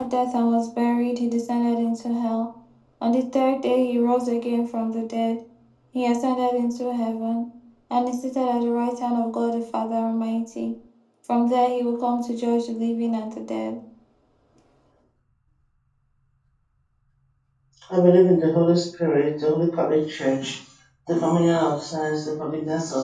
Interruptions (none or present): none